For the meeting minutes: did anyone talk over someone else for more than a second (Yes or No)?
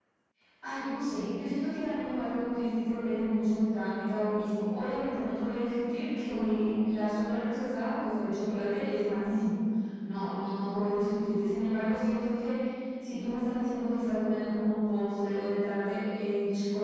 No